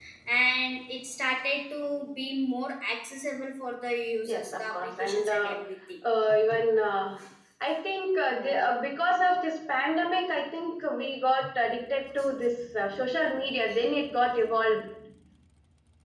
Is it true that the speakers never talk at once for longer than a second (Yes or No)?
No